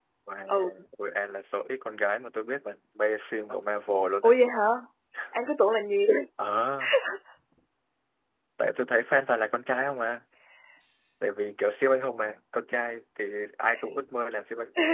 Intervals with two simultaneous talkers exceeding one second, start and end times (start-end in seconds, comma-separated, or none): none